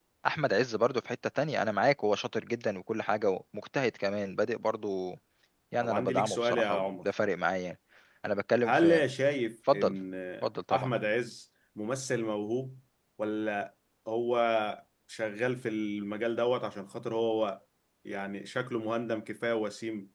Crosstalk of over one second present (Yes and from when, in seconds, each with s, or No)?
Yes, from 5.8 s